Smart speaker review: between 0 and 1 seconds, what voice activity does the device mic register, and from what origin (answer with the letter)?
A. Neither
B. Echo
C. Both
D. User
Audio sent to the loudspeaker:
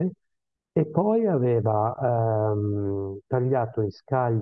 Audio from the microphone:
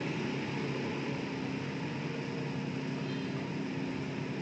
A